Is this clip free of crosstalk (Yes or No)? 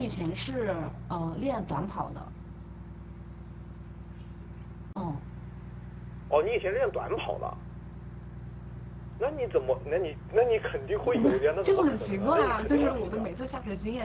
No